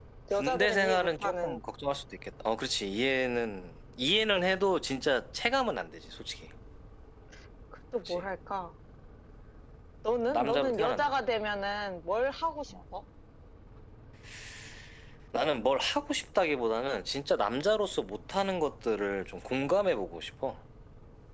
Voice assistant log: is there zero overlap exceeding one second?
No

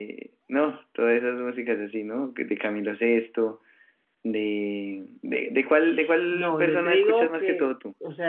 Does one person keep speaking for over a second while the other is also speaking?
Yes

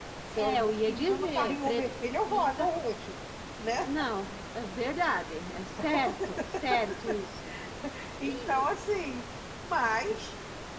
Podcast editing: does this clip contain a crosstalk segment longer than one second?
Yes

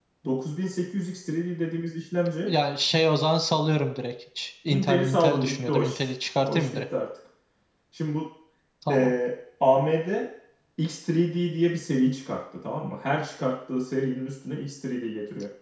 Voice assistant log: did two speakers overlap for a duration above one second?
Yes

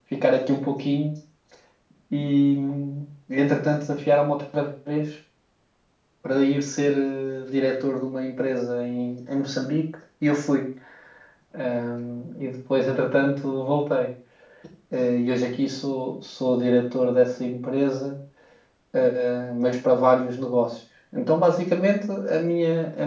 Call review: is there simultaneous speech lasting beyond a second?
No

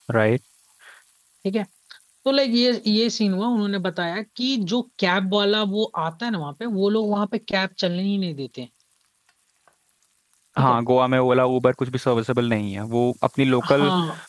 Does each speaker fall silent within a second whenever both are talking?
Yes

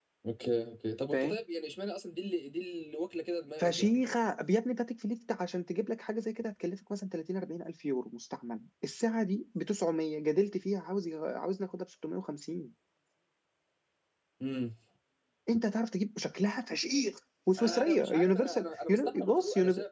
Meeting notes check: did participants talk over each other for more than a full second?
Yes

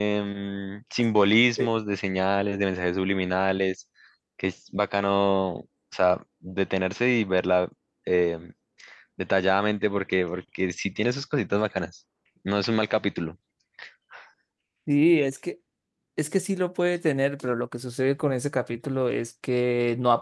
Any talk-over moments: No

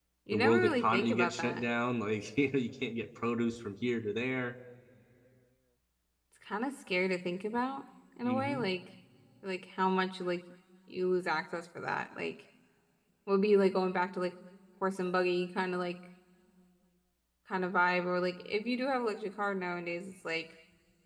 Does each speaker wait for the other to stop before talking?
No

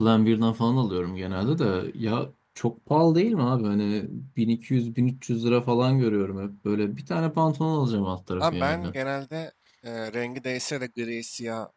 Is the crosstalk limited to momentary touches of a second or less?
Yes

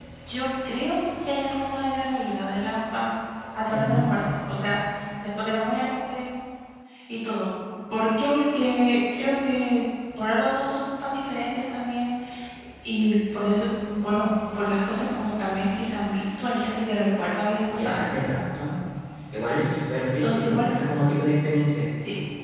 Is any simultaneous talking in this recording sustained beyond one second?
No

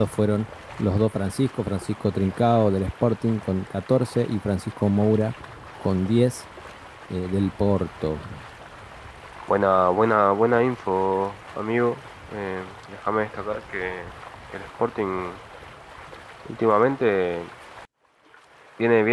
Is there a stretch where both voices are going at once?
No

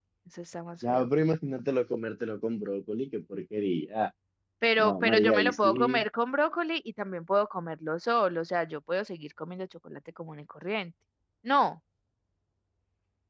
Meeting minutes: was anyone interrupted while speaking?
Yes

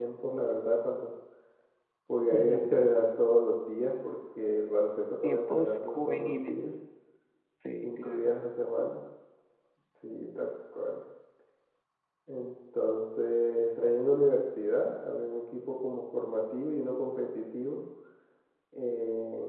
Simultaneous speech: Yes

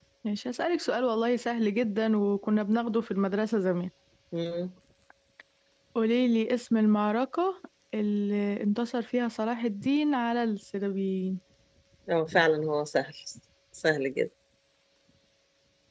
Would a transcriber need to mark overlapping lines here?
No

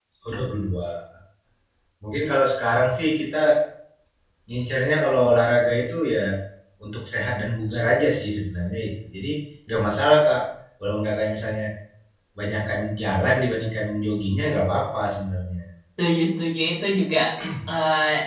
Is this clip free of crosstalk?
Yes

